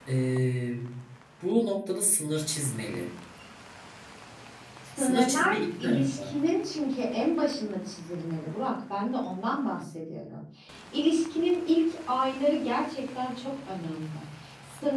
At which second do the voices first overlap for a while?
5.0 s

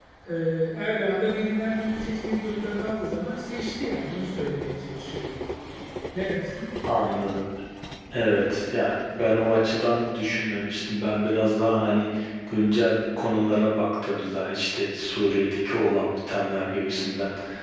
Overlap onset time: none

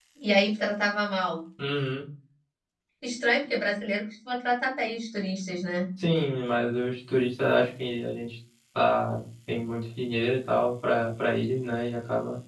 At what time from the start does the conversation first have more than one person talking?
none

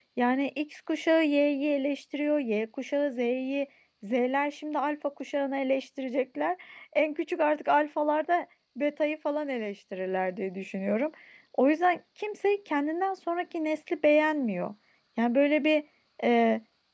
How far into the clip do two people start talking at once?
none

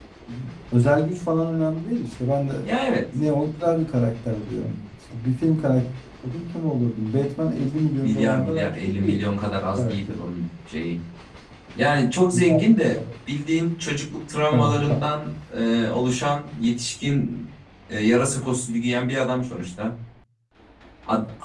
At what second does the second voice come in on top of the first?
8.0 s

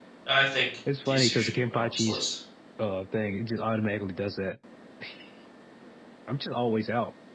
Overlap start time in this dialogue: 1.1 s

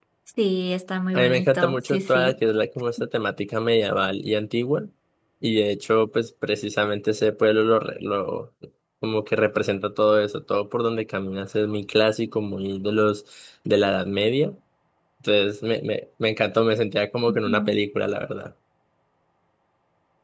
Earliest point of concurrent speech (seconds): 1.1 s

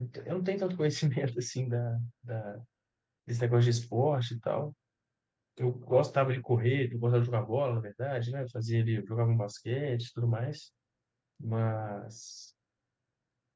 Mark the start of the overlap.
none

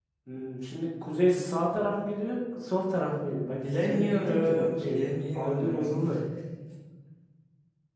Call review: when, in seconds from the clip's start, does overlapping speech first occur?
3.6 s

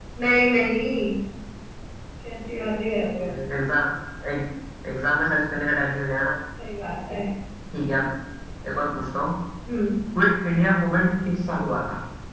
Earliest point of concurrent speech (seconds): none

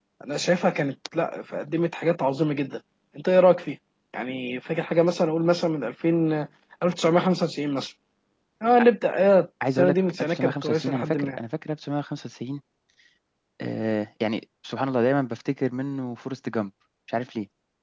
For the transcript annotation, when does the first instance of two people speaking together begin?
9.8 s

